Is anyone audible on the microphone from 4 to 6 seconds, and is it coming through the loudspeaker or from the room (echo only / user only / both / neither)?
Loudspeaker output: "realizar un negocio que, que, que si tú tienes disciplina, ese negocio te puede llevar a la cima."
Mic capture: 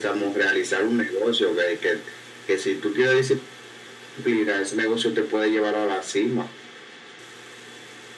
echo only